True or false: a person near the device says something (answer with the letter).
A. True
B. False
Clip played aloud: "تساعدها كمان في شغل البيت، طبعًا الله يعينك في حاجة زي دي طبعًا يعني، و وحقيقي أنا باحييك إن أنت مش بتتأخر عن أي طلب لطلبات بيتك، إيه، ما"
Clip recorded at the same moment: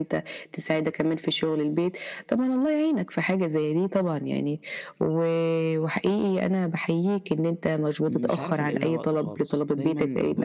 A